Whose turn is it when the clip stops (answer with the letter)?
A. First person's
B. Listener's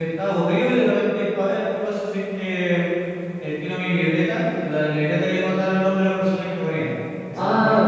B